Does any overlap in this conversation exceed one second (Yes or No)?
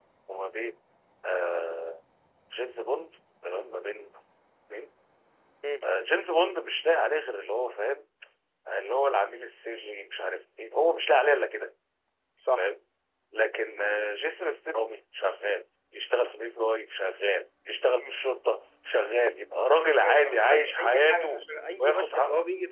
Yes